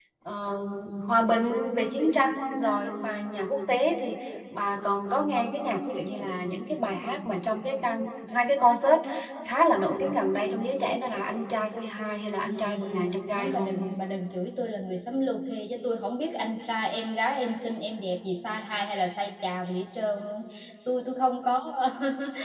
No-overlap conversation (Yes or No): No